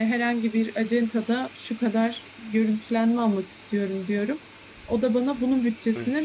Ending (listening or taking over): listening